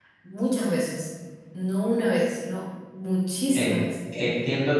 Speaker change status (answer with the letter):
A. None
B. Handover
B